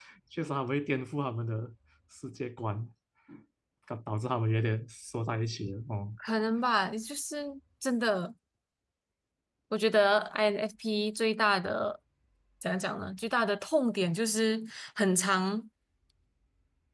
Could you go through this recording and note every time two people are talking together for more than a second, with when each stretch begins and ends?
none

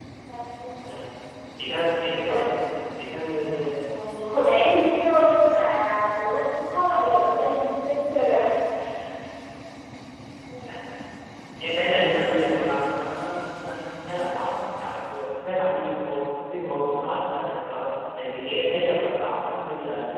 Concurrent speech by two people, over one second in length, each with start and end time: none

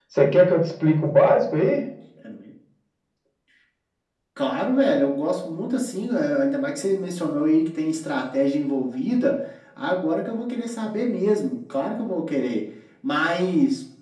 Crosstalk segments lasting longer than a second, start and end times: none

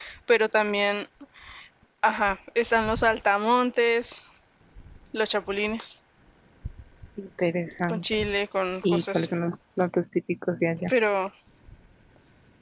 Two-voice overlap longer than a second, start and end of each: none

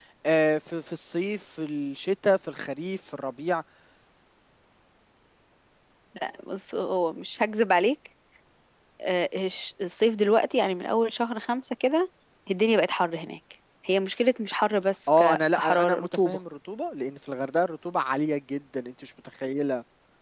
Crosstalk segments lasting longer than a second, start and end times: 15.2-16.4

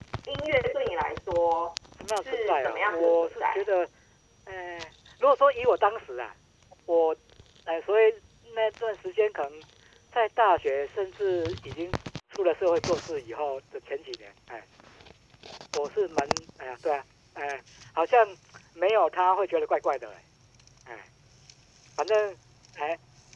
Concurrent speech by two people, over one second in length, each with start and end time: 2.1-3.6

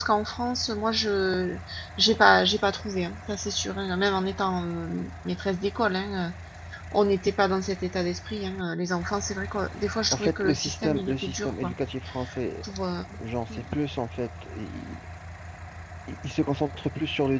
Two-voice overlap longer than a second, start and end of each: 10.1-11.7

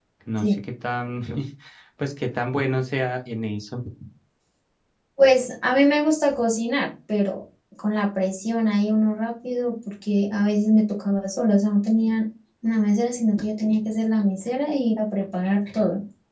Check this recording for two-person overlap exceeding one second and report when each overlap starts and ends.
none

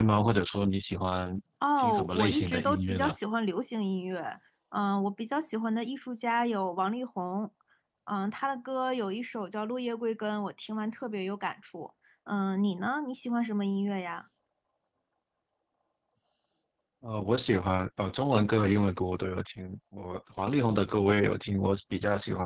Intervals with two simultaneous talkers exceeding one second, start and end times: 1.8-3.1

